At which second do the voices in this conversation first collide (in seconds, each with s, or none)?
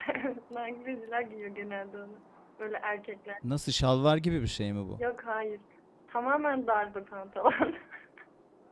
none